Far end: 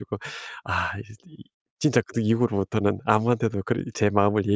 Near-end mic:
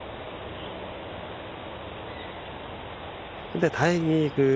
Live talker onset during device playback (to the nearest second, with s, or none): 4 s